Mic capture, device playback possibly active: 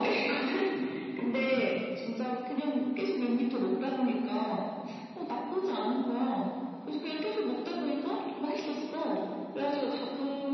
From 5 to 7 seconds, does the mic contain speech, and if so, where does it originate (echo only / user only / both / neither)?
echo only